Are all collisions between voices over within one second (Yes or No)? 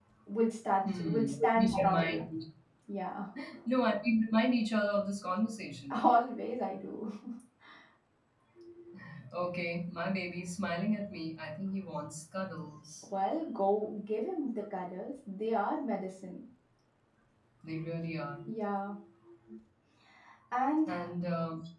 No